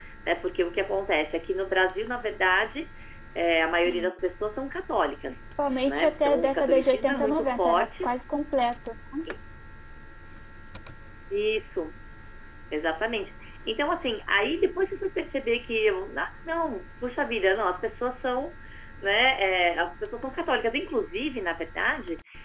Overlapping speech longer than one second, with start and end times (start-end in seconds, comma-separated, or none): 5.9-8.0